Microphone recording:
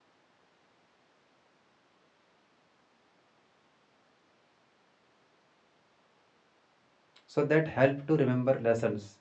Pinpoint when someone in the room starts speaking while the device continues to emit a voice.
7 s

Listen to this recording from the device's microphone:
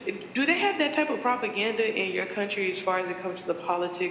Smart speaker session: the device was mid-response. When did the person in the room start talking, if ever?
none

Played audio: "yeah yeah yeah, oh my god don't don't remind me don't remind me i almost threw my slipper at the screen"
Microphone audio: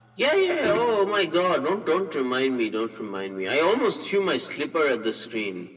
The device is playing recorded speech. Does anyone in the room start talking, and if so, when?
none

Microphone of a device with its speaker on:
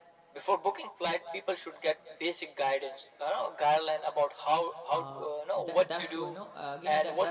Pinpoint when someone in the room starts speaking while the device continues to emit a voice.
5 s

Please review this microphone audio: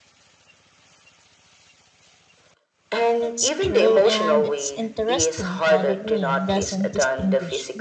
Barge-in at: 3 s

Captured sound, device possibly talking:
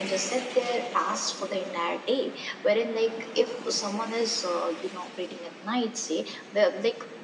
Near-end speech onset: none

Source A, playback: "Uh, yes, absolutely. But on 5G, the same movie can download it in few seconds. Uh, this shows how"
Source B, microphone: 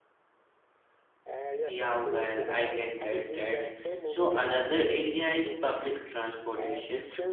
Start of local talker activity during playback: 2 s

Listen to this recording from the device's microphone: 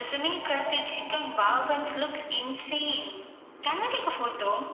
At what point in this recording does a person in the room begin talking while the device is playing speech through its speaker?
none

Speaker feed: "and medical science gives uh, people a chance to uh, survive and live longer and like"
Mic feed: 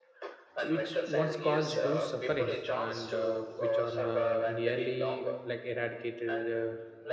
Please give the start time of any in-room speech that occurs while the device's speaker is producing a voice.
1 s

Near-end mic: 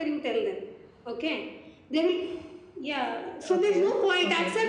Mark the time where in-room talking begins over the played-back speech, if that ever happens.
4 s

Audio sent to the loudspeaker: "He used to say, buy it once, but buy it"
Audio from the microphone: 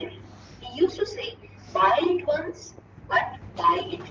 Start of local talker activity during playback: none

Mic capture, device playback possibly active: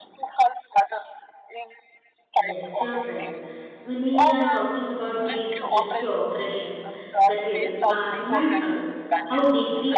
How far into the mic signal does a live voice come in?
2 s

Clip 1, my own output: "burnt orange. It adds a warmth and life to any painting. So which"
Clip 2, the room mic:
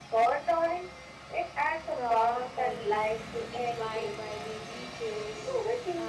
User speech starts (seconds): 2 s

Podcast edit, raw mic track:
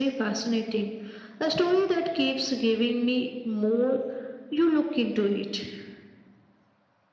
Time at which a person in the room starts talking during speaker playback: none

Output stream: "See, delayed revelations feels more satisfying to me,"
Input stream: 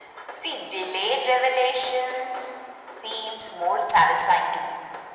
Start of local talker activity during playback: none

